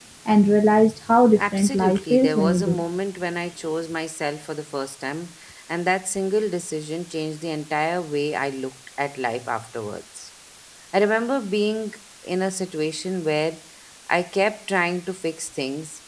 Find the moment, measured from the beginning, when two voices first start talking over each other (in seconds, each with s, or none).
1.4 s